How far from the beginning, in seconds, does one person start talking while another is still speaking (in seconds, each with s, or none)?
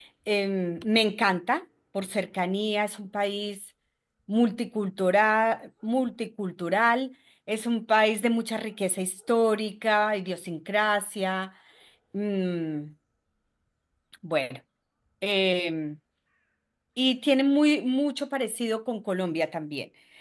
none